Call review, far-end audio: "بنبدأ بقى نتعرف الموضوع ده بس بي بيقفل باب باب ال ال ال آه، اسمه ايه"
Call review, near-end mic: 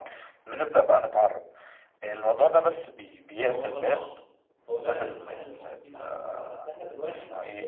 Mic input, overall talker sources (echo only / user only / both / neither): both